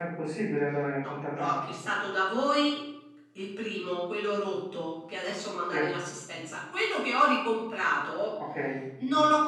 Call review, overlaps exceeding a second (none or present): none